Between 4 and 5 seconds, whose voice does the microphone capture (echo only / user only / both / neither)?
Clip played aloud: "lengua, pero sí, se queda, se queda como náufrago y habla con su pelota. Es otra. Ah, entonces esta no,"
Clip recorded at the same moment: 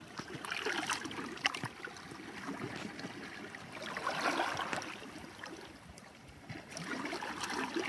neither